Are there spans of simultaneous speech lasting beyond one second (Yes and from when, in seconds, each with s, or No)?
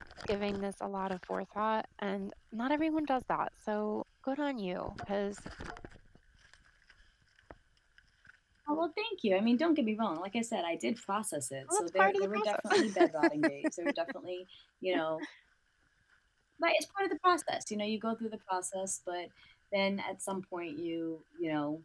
Yes, from 11.7 s